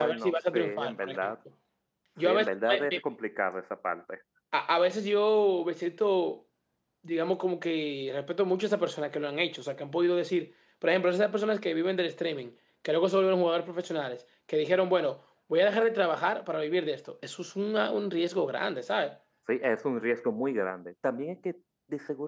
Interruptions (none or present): present